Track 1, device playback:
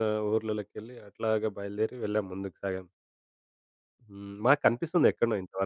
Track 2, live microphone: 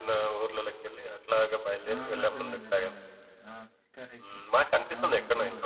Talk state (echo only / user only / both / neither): both